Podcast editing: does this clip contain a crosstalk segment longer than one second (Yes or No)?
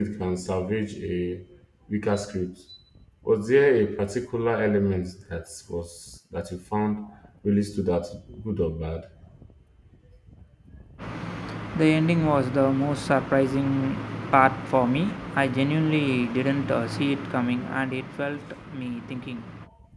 No